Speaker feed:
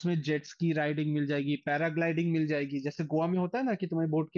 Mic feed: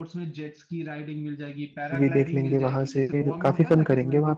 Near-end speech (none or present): present